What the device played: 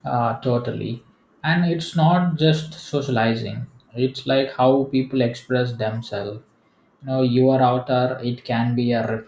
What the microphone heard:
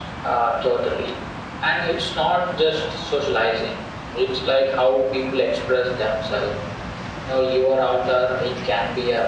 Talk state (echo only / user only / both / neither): echo only